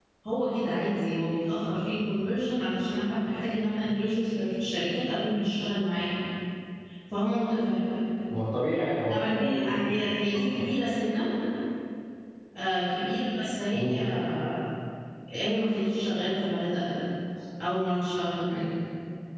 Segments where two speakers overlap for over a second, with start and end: 9.1-10.6

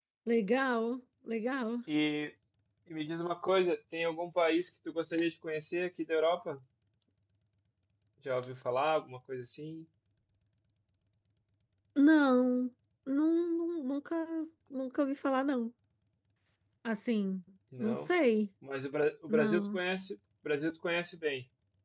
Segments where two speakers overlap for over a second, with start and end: none

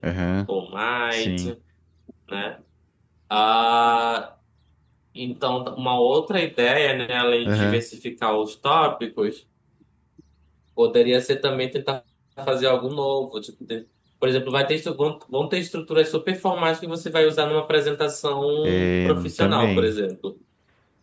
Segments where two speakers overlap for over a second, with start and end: 18.6-19.9

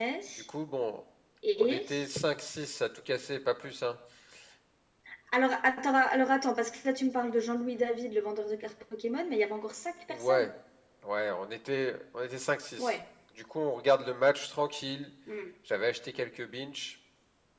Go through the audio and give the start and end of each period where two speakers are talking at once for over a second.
none

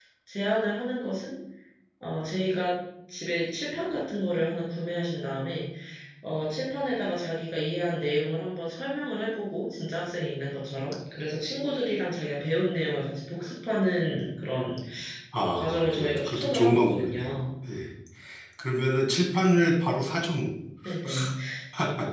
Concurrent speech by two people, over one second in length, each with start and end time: 15.5-17.4

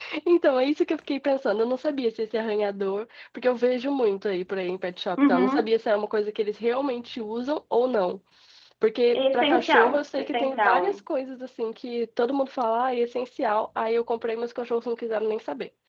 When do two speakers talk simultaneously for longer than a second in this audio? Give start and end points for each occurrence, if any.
9.1-11.0

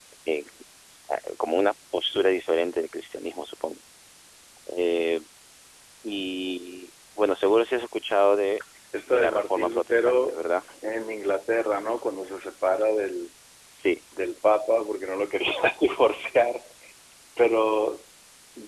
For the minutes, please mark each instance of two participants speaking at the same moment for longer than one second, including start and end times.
9.1-10.4

